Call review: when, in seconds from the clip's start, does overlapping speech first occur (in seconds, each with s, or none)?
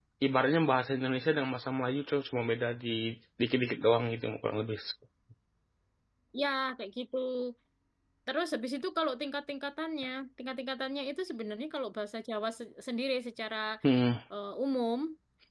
none